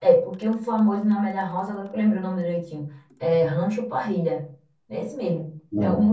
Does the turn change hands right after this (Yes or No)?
No